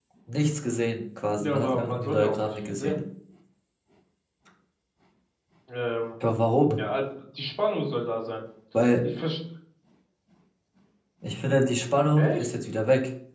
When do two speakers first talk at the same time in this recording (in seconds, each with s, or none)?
1.4 s